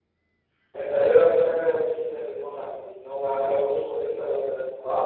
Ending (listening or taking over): taking over